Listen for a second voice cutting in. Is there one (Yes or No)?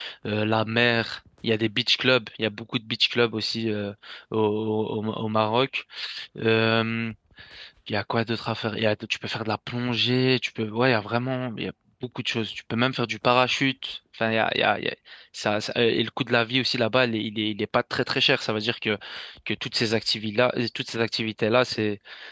No